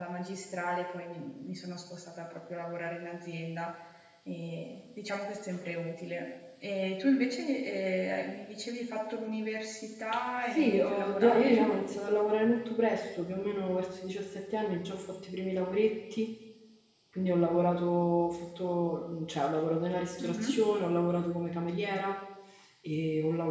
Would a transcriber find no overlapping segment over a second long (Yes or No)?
No